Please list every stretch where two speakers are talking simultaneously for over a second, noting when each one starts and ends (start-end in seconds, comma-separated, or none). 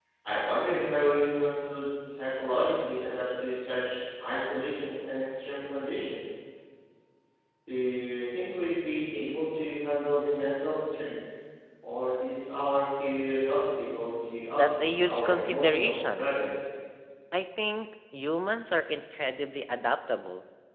14.6-16.3